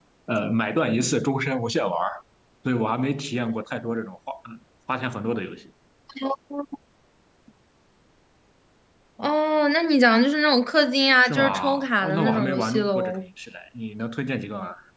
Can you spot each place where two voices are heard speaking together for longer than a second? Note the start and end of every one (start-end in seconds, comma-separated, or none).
11.2-13.3